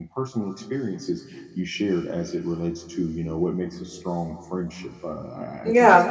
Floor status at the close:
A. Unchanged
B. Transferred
A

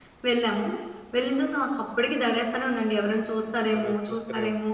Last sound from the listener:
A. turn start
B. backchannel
A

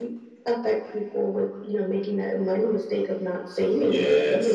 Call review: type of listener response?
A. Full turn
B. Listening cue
A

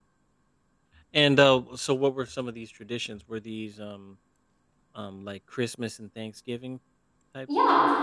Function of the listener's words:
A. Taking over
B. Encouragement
A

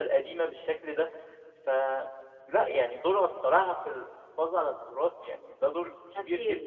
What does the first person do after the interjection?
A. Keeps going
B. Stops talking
B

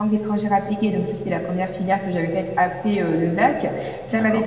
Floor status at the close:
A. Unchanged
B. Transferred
A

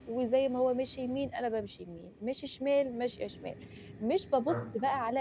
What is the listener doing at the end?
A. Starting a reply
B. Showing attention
B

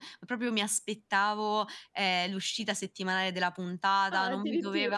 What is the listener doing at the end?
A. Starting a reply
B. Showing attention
B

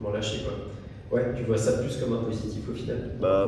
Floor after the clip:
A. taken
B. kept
A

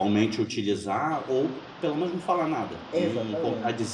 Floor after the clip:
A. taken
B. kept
A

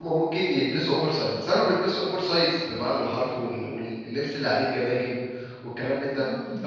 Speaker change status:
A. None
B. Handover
A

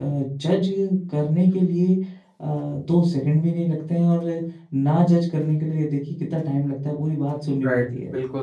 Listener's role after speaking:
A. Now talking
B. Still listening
A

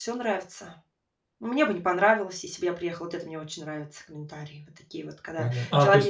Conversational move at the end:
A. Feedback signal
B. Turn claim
B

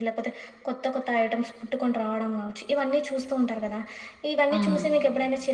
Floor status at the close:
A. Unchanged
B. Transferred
A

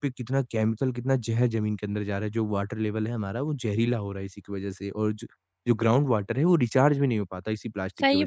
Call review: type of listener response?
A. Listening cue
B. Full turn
B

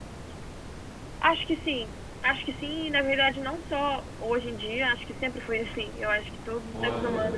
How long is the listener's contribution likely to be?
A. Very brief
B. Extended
A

